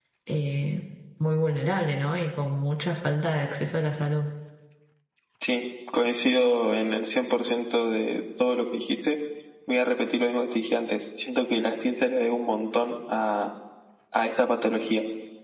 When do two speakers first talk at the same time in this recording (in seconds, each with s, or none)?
none